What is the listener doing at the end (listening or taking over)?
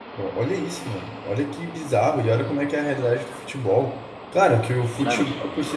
listening